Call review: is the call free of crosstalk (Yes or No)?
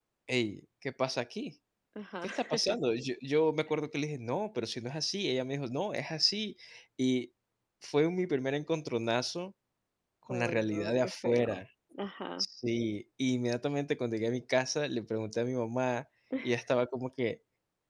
No